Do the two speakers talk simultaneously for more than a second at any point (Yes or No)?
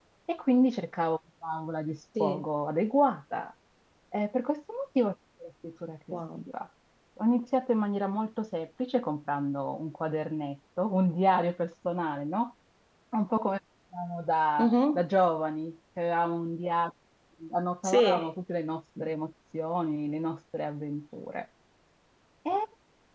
No